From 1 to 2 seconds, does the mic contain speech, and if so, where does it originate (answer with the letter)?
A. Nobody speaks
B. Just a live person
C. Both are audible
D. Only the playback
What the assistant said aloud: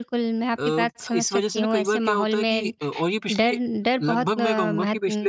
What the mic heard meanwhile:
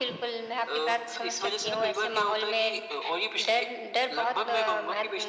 D